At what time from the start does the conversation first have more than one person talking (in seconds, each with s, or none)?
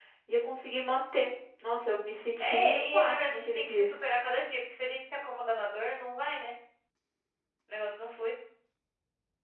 2.4 s